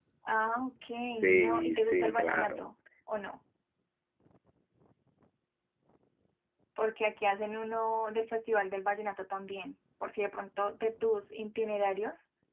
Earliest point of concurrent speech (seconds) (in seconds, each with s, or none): 1.2 s